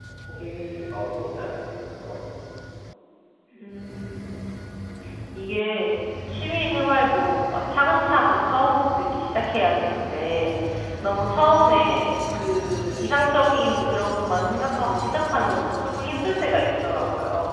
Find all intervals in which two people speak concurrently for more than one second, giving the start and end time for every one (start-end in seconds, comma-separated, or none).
none